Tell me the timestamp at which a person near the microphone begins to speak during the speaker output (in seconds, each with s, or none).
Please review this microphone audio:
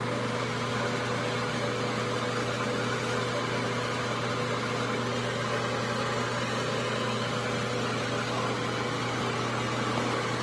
none